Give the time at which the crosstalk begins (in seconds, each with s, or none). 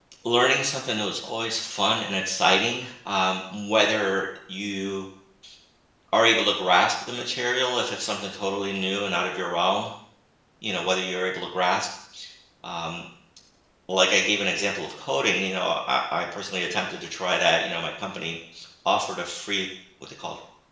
none